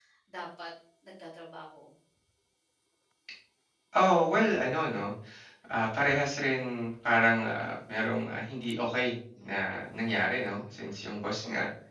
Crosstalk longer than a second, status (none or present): none